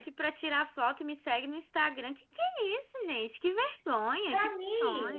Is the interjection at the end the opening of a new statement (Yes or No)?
Yes